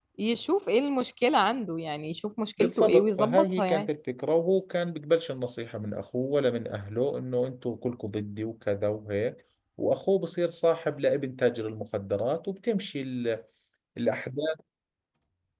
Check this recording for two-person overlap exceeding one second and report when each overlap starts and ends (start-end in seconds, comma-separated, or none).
2.6-3.9